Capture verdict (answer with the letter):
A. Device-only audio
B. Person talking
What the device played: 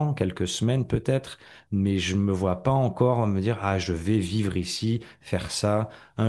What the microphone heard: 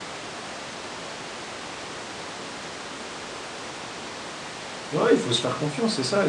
B